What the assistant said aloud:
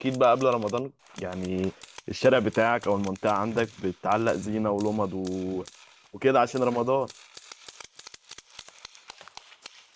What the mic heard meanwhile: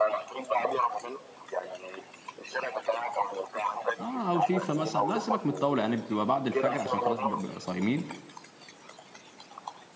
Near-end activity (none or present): present